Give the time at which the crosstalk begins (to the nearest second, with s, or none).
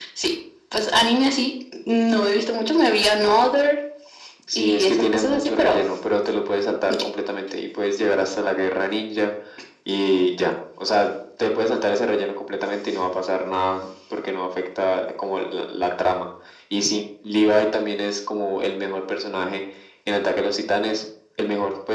5 s